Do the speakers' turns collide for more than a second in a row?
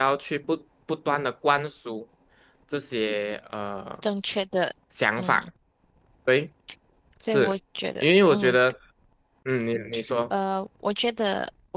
No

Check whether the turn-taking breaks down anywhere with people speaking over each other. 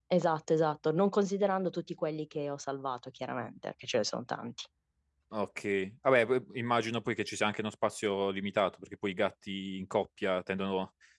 No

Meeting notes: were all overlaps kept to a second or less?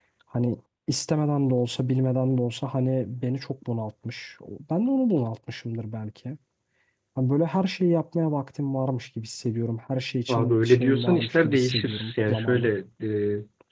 No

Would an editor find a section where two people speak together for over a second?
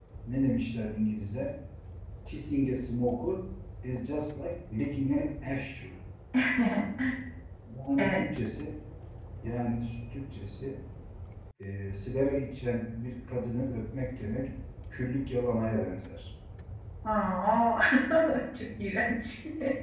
No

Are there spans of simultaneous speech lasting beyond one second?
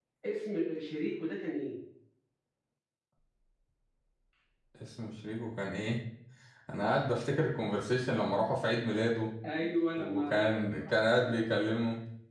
Yes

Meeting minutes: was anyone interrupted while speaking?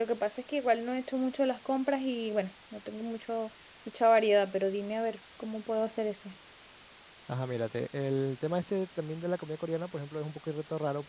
No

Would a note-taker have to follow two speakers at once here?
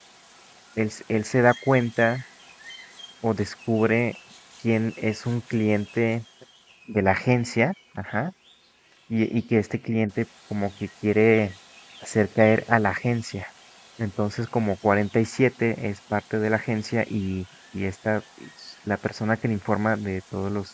No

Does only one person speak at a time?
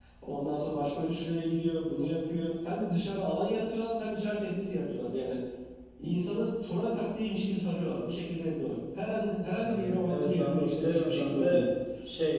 No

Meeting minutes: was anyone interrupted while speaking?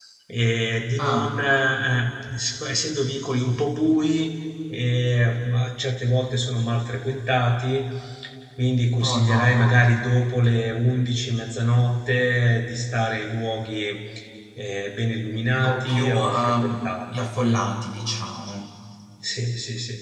Yes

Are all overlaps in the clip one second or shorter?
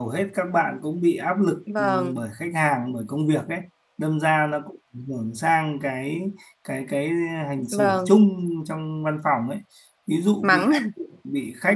Yes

